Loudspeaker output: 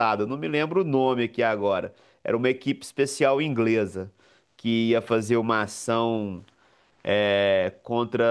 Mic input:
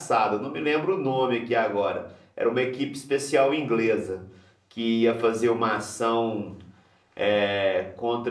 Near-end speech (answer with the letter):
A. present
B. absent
B